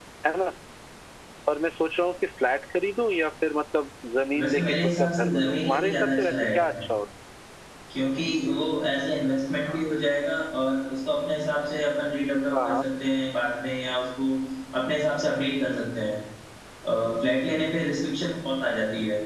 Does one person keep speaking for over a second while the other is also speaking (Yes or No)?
Yes